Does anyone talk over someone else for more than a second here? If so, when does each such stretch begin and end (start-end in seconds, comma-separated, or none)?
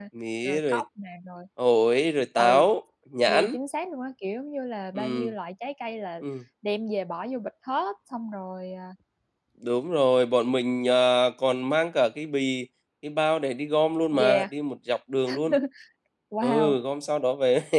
none